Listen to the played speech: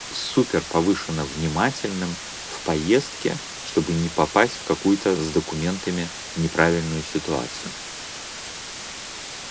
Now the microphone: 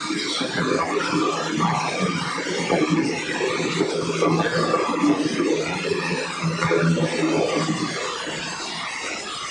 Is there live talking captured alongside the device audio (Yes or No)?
No